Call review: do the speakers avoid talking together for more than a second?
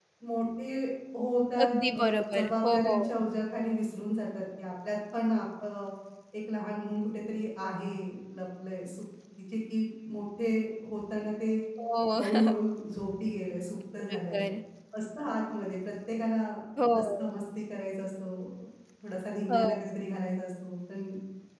No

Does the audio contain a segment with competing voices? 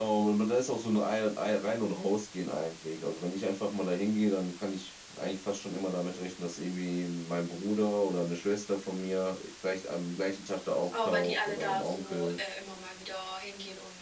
Yes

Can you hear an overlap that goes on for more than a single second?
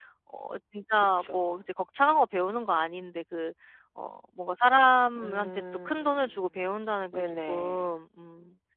Yes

